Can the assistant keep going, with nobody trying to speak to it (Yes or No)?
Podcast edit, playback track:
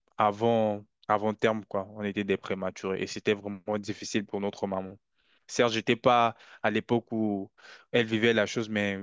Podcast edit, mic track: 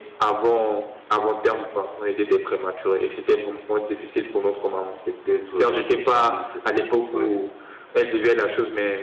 No